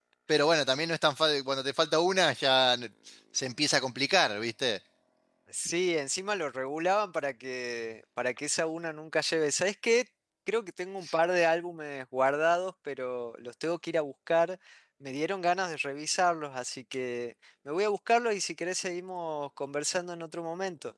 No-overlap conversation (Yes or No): Yes